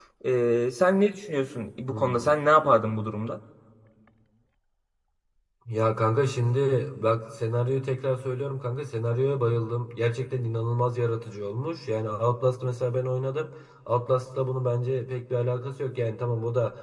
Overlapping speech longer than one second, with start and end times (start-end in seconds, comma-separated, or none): none